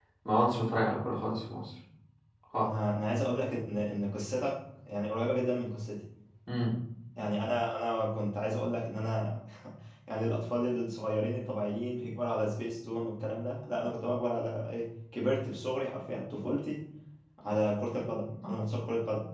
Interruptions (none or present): none